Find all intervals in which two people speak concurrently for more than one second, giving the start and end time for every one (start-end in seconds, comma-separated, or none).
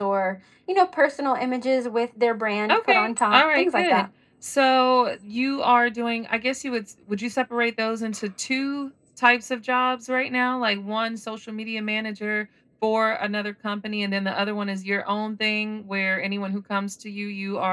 2.7-4.0